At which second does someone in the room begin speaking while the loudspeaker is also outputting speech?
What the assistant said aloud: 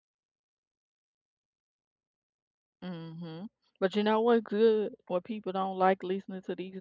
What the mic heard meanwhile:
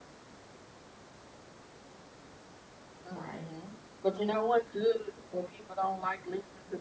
3.1 s

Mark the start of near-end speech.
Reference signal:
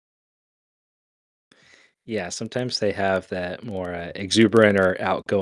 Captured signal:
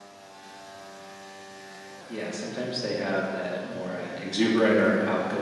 none

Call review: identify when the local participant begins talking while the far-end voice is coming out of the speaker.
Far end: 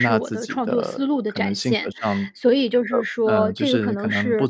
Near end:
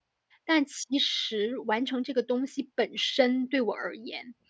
0.5 s

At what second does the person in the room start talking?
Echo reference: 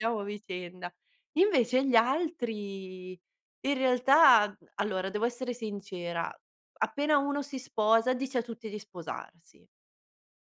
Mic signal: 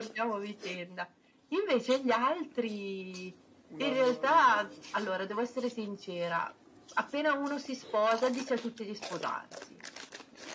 3.7 s

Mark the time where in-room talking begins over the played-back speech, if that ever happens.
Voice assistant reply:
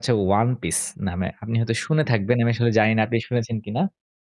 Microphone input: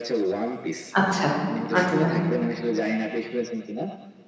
1.0 s

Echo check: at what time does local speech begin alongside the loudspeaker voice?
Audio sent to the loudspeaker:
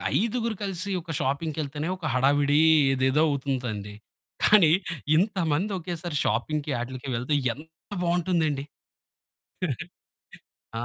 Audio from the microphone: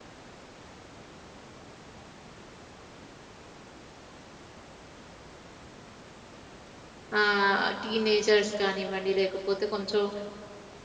7.2 s

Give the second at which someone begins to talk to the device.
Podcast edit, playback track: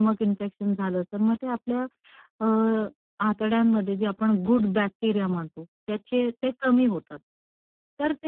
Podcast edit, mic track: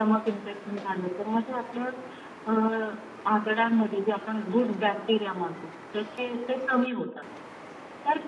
none

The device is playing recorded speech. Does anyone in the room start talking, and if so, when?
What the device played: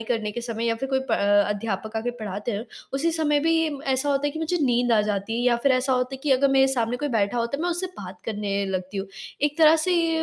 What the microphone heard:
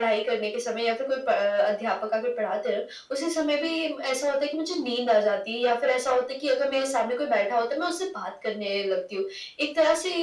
none

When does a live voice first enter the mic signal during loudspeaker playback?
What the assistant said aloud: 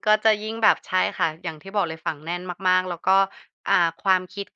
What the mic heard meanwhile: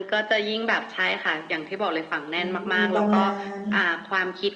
2.4 s

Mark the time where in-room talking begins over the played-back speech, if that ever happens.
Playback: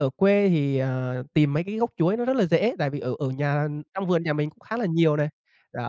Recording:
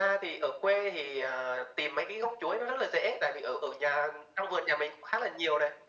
none

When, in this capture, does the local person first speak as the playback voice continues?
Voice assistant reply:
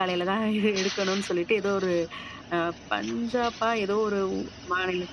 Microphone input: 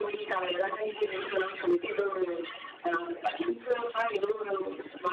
none

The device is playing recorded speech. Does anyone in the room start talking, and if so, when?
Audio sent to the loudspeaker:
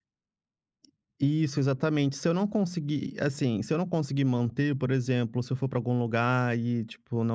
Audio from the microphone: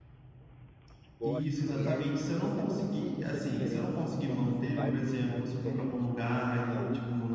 1.2 s

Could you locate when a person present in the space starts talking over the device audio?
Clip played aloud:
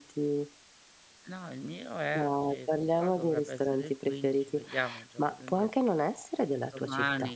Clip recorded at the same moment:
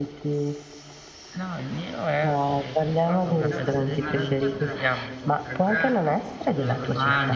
3.4 s

